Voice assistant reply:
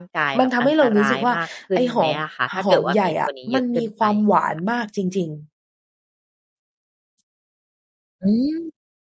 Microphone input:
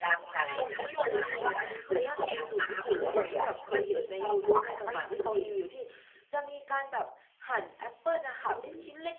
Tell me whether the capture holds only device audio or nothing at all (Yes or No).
No